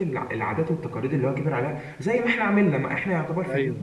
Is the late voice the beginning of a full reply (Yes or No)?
No